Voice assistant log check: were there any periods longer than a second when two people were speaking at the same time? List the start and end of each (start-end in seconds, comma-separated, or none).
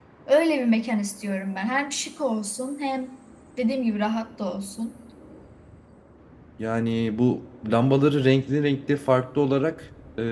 none